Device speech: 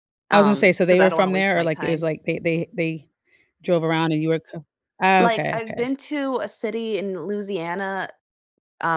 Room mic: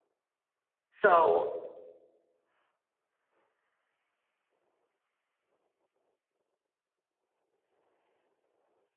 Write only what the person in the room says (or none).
So,